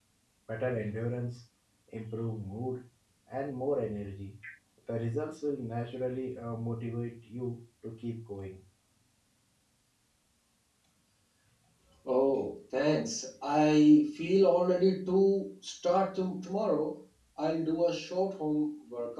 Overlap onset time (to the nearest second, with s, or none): none